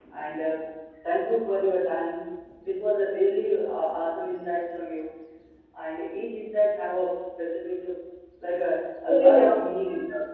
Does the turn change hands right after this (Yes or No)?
No